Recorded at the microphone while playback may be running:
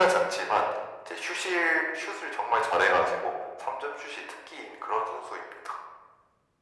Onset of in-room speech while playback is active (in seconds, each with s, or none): none